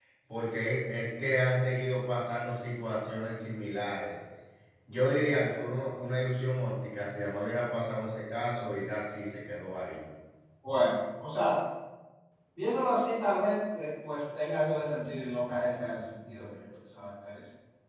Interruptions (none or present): none